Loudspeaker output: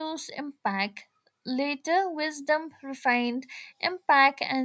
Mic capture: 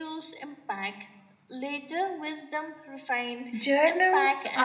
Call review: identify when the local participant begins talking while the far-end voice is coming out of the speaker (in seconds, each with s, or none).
3.6 s